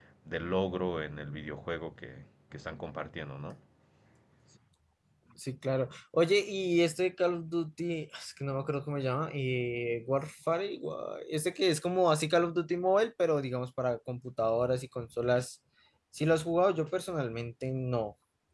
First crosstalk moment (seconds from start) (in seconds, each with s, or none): none